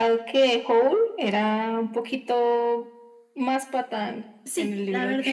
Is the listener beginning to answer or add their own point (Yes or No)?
Yes